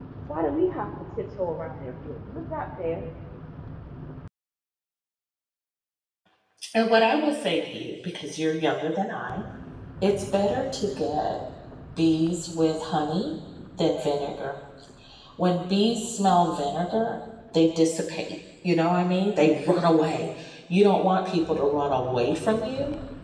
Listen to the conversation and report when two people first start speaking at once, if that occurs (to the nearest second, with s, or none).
none